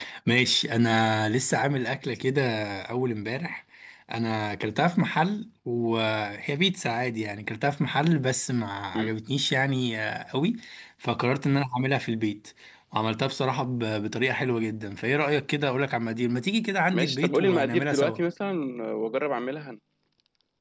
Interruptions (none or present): present